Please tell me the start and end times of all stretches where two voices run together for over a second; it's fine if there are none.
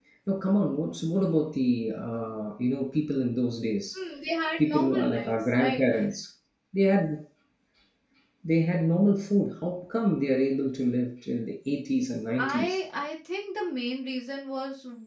4.6-5.8

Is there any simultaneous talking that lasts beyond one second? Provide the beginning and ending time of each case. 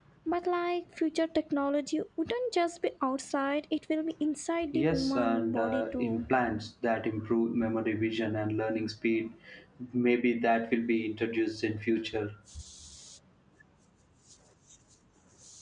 4.7-6.2

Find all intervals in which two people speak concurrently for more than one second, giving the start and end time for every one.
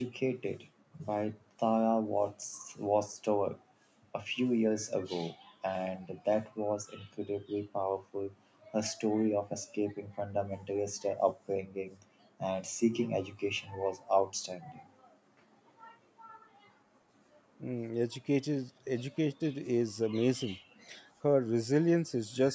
none

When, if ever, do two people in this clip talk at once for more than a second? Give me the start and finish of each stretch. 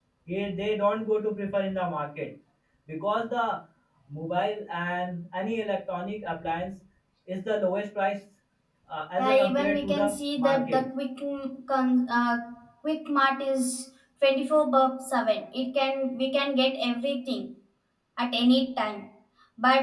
9.2-10.8

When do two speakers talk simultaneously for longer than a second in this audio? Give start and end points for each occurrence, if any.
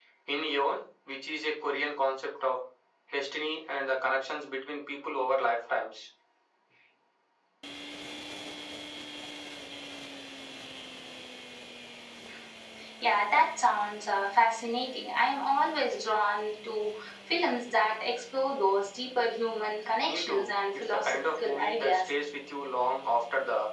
19.9-22.1

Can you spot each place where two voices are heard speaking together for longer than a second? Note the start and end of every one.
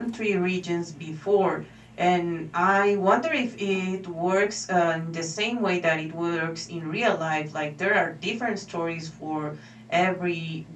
none

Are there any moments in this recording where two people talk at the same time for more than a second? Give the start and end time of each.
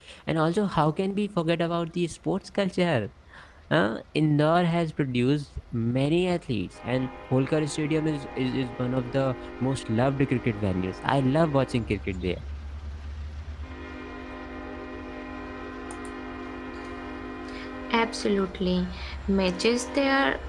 none

